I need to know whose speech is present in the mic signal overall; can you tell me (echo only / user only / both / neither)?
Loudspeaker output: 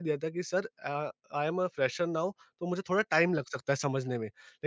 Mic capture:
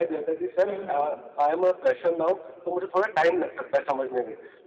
both